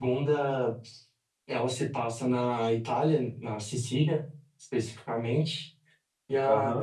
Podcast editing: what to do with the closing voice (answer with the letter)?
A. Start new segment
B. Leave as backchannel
A